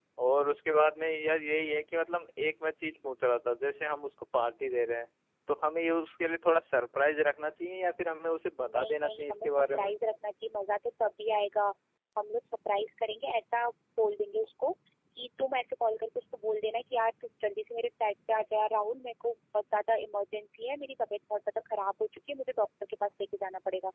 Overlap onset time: 8.6 s

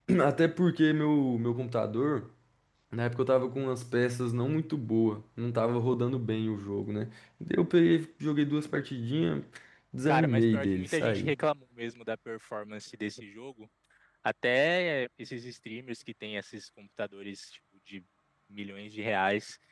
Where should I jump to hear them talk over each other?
10.0 s

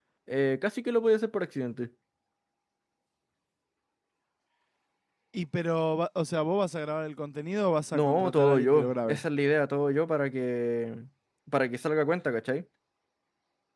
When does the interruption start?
7.9 s

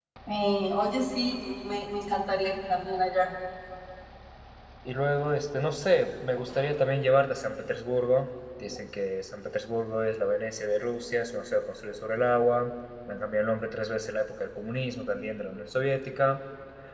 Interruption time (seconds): none

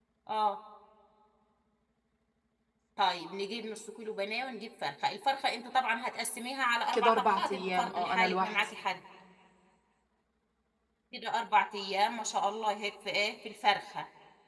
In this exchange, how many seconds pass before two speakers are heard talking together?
6.9 s

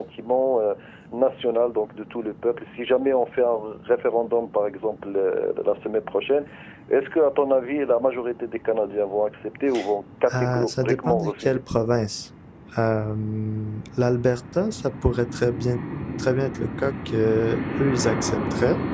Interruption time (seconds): 10.3 s

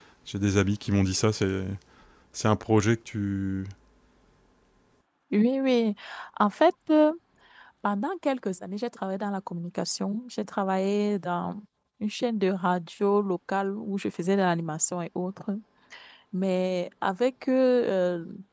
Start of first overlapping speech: none

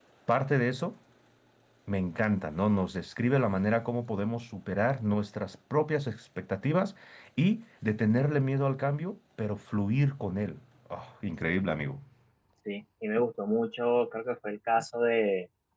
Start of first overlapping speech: none

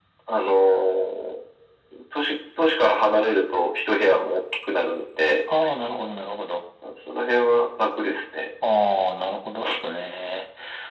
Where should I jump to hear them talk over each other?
none

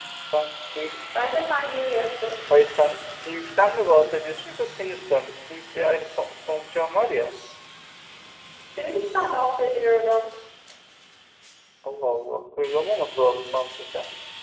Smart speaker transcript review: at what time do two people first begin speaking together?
none

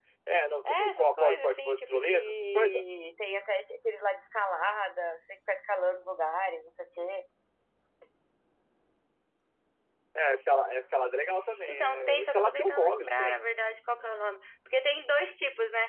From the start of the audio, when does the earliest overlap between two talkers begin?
0.7 s

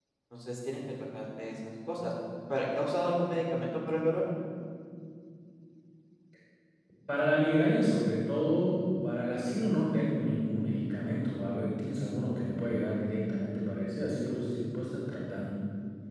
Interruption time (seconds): none

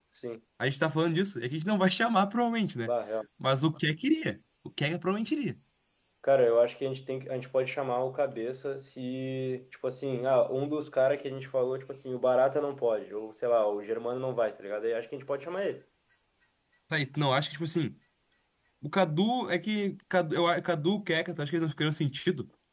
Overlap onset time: none

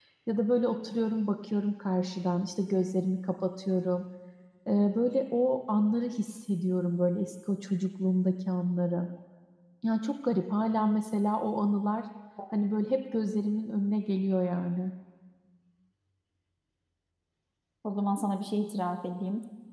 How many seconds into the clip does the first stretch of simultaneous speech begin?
none

